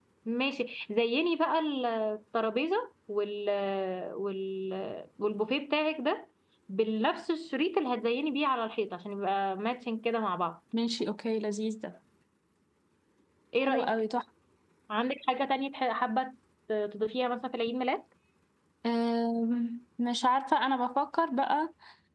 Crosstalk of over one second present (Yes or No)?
No